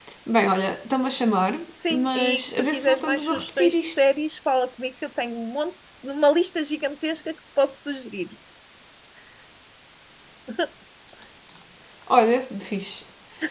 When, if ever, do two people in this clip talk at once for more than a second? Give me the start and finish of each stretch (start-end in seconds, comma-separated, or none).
1.9-4.0